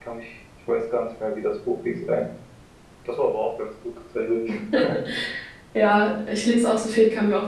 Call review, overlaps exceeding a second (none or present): none